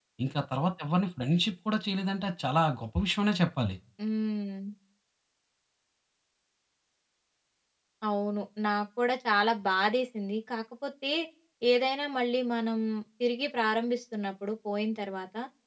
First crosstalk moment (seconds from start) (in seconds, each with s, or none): none